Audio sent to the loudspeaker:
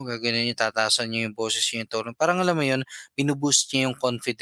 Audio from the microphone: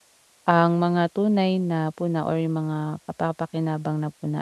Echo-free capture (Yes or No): Yes